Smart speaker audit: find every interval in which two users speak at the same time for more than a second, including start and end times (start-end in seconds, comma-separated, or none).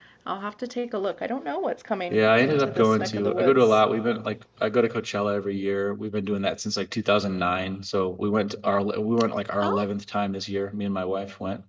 2.1-3.8